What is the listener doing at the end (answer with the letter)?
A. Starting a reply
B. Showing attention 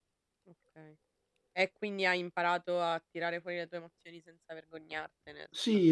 A